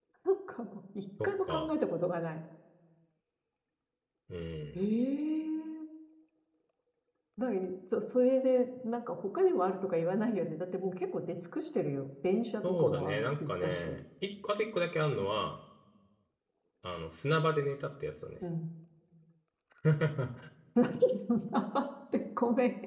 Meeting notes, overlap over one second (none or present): present